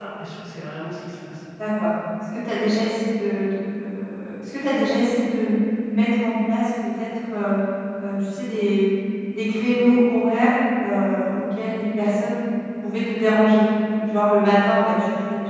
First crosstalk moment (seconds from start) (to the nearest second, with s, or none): none